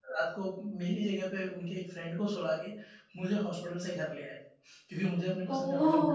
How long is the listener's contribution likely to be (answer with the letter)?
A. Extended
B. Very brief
A